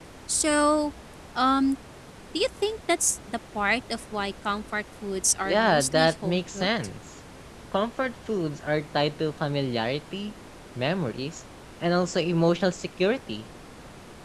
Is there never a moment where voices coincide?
No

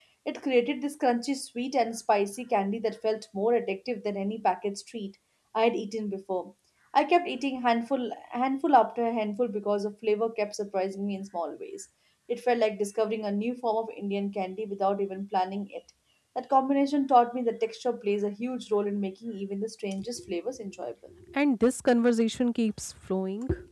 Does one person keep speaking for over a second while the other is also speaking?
No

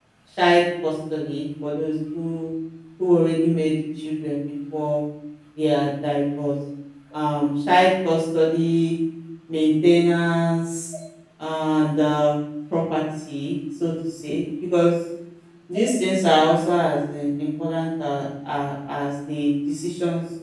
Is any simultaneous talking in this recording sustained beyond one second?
No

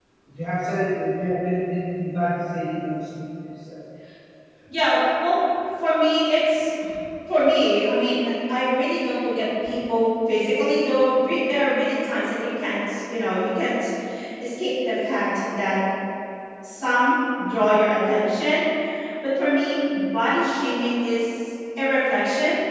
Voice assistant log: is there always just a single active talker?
Yes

